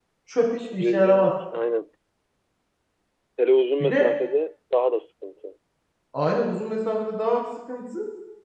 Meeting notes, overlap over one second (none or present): none